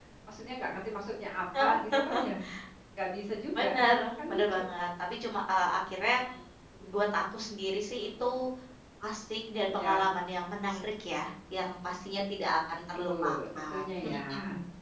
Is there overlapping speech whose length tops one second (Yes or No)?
Yes